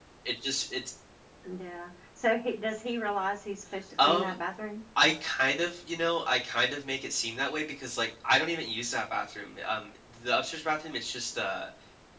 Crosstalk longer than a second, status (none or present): none